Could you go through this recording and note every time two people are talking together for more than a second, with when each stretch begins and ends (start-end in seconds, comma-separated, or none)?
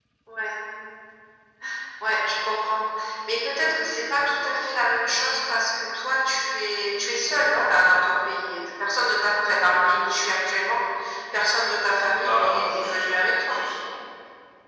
12.2-13.6